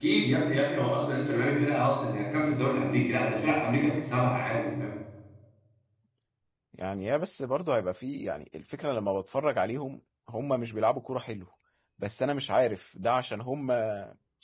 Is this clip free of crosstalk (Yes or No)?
Yes